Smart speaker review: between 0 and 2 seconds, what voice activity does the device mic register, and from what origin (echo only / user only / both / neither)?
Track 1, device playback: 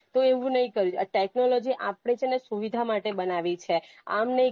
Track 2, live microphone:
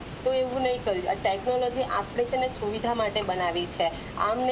echo only